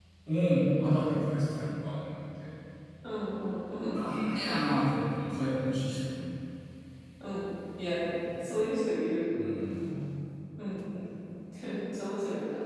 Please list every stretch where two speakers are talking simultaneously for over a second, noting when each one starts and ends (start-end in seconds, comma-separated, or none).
none